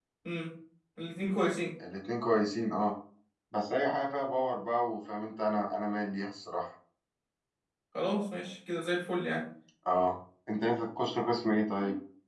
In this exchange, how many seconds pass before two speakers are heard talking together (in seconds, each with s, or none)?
none